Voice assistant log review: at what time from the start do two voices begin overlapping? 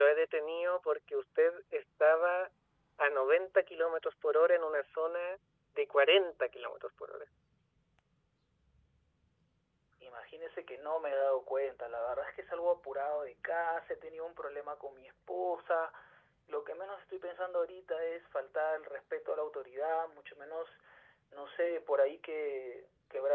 none

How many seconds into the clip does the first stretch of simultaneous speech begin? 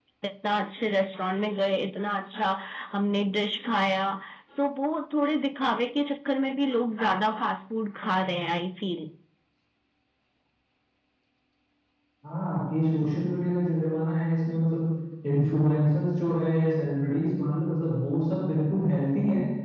none

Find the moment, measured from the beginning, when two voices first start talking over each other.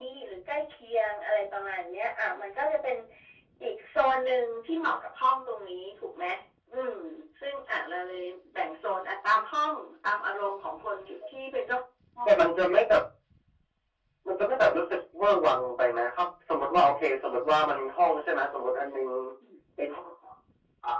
none

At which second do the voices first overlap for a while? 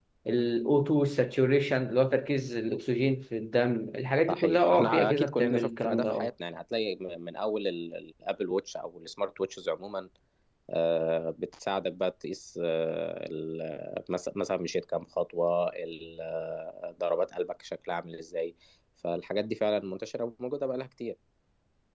4.3 s

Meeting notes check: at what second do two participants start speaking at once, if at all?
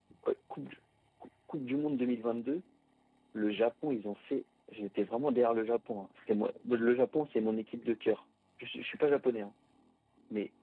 none

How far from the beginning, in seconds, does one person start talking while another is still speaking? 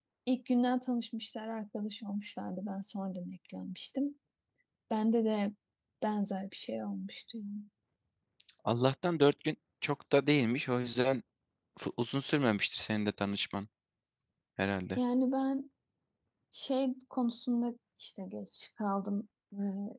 none

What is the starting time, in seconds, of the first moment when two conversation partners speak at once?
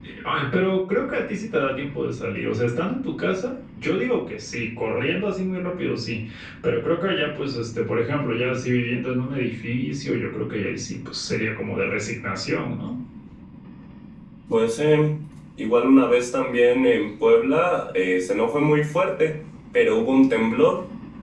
none

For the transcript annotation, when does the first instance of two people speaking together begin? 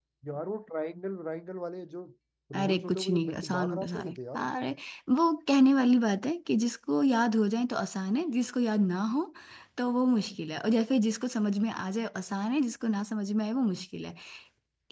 2.5 s

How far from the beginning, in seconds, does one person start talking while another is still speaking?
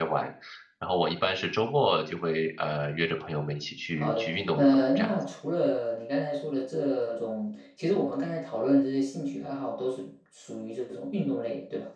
4.0 s

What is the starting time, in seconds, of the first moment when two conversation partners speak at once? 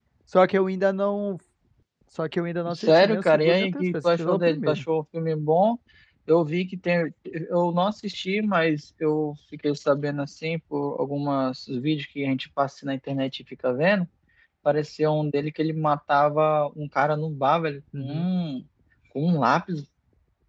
2.7 s

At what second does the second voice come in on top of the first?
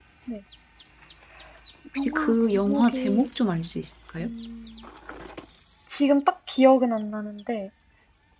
2.0 s

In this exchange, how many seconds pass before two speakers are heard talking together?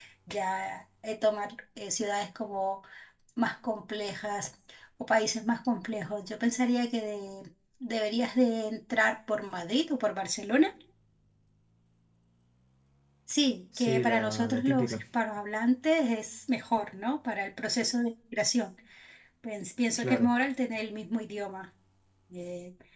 13.8 s

